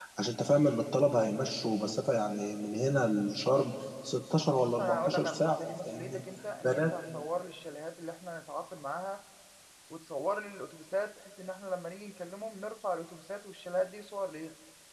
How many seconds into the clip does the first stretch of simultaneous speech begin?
4.4 s

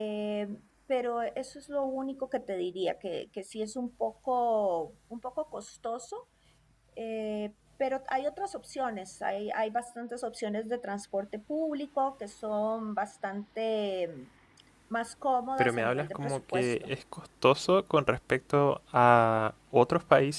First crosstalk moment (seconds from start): 15.6 s

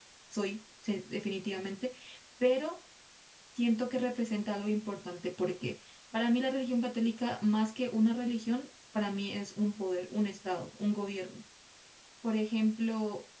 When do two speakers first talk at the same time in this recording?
none

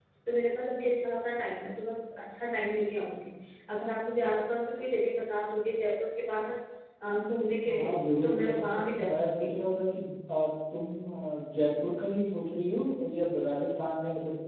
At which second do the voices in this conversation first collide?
7.7 s

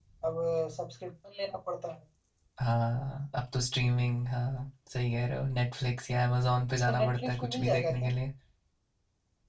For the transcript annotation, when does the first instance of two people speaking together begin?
6.9 s

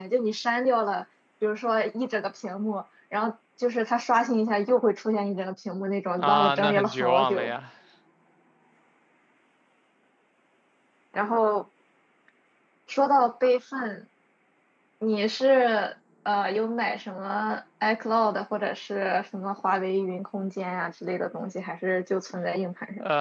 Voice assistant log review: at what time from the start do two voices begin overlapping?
6.2 s

